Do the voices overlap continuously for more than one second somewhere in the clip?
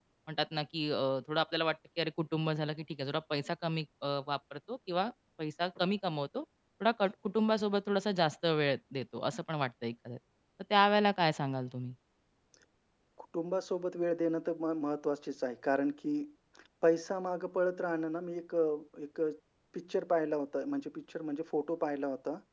No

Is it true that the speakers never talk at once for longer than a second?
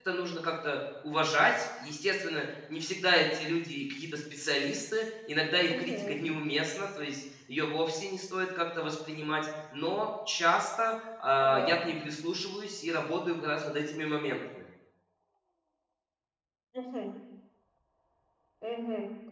Yes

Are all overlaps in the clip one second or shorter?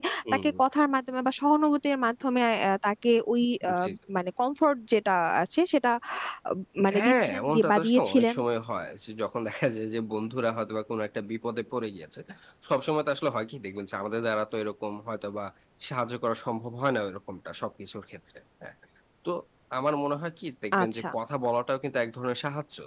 No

